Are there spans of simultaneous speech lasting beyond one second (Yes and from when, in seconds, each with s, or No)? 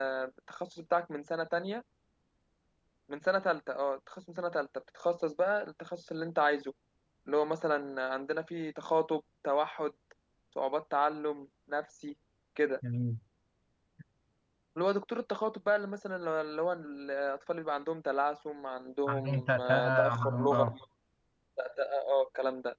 Yes, from 19.1 s